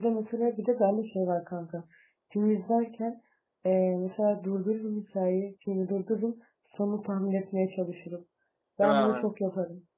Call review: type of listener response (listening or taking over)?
listening